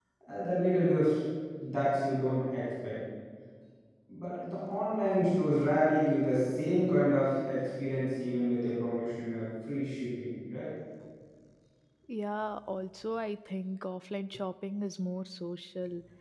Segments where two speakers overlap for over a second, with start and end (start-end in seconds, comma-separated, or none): none